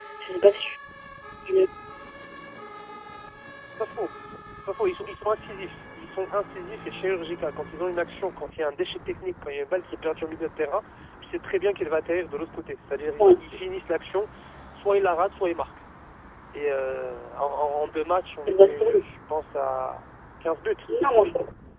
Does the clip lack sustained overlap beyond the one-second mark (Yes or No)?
Yes